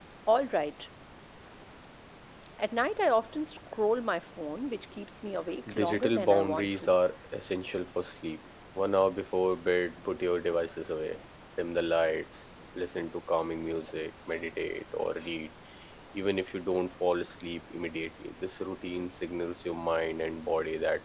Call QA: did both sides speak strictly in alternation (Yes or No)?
No